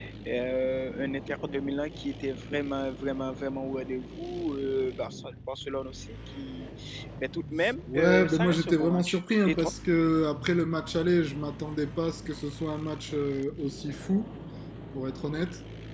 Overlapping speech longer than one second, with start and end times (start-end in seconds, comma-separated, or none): 7.9-9.7